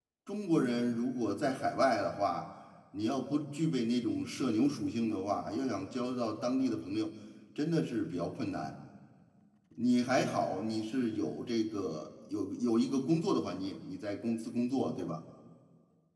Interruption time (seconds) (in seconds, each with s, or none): none